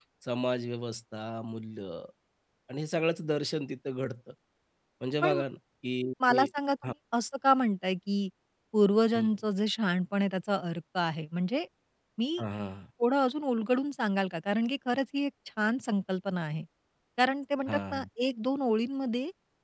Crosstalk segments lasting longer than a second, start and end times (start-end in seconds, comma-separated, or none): none